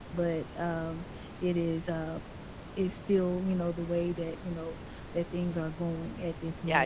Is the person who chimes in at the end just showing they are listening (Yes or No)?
No